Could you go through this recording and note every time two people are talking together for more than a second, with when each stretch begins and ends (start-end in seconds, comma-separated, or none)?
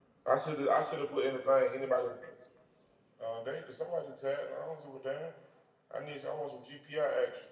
none